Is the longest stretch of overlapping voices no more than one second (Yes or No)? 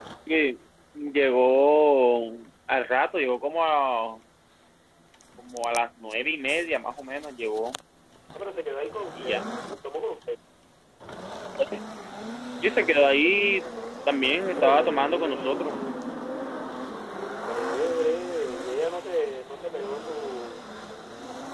No